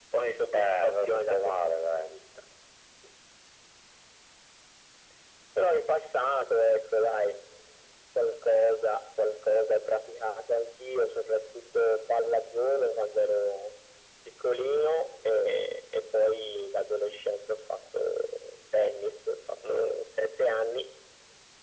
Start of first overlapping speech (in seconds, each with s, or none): 0.5 s